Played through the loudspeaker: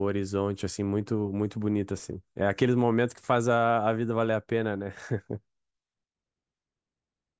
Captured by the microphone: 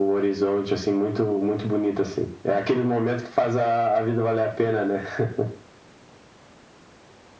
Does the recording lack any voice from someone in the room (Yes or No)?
Yes